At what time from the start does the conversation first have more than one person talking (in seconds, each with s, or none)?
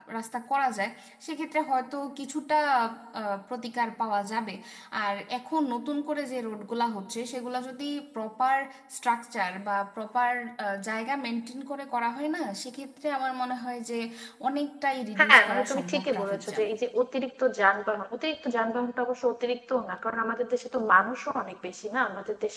15.2 s